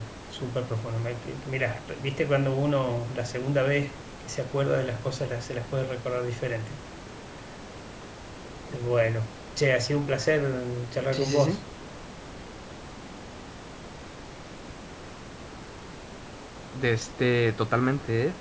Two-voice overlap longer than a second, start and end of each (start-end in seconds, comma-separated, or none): none